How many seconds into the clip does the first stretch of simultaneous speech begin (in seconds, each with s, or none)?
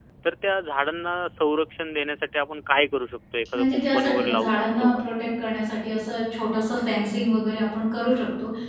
3.5 s